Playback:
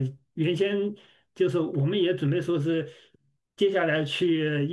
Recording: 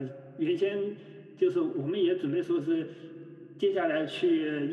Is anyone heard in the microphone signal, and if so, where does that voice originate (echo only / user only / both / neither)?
echo only